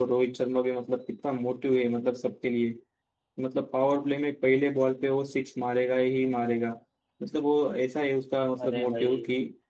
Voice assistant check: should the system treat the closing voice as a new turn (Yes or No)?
No